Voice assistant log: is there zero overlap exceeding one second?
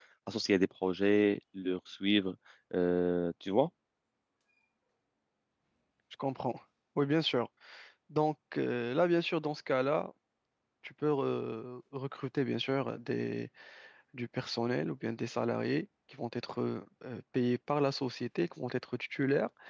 Yes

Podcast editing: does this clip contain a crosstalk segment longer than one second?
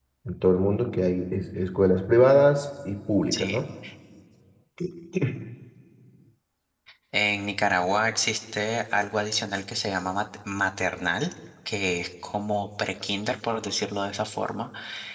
No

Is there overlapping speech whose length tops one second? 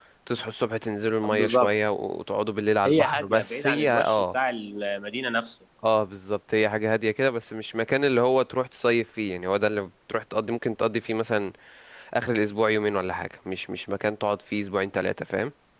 Yes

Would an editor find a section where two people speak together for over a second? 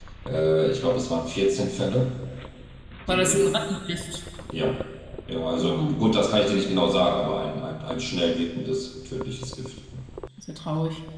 No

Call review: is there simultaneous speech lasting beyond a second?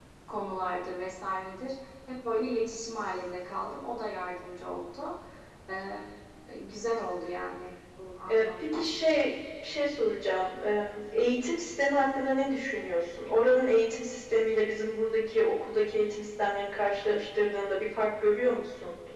No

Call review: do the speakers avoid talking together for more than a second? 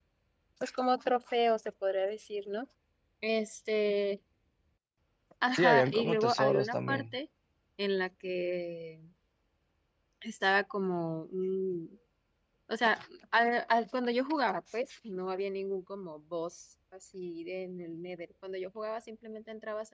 No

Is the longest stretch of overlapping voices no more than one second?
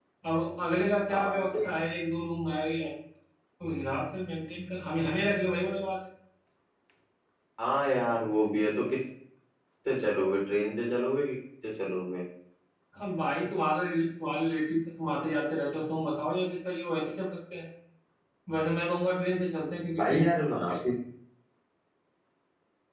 Yes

